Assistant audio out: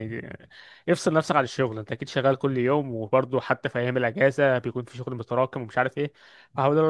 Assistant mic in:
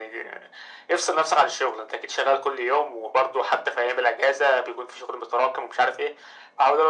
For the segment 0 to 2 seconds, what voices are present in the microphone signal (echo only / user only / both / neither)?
echo only